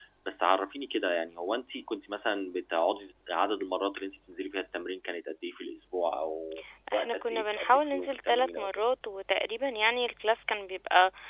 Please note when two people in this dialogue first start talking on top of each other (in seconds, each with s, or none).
6.9 s